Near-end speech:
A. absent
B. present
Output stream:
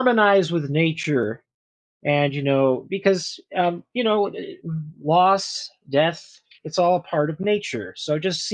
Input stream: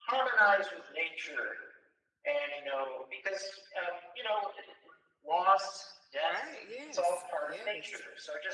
B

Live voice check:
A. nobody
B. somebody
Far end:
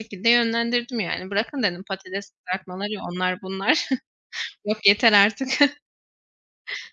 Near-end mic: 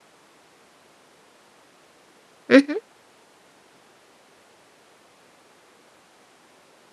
B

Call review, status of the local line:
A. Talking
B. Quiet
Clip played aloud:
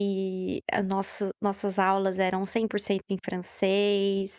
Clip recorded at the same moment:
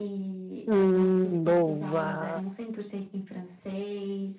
A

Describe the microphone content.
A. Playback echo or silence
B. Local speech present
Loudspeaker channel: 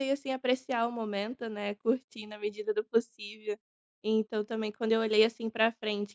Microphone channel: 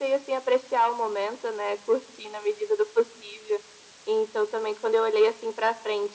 A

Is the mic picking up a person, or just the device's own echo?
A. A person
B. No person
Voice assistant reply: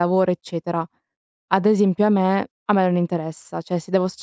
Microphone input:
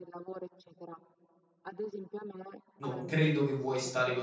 A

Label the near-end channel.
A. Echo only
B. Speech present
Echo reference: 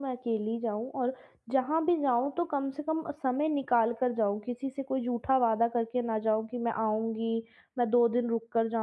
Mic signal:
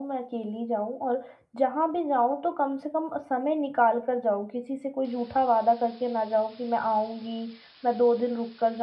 A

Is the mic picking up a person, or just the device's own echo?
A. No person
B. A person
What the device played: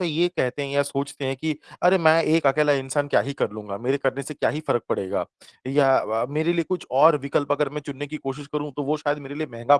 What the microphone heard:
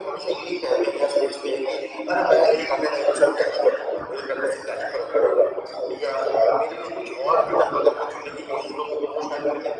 A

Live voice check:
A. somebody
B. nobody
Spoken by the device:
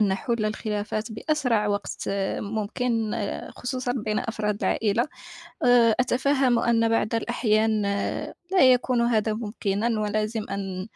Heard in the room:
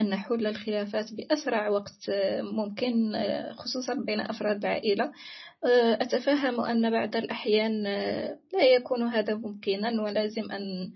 B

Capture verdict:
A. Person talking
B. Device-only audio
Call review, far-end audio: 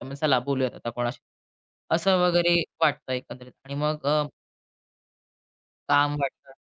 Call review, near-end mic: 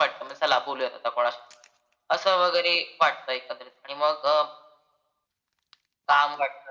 B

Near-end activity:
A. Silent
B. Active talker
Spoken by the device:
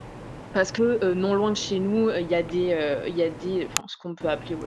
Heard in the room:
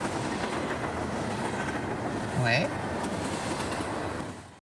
B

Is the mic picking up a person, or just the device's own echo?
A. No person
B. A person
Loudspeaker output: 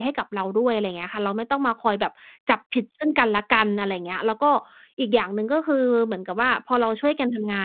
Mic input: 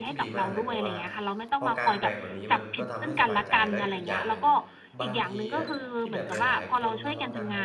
B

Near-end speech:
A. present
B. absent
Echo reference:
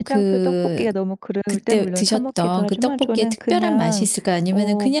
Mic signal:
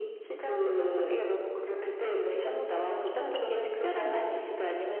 B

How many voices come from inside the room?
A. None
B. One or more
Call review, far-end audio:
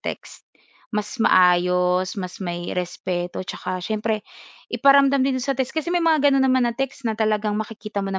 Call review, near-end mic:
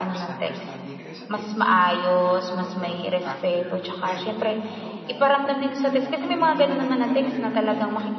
B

